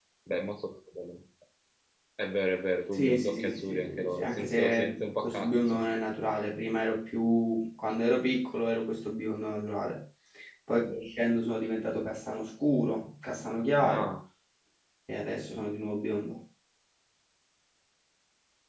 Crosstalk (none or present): present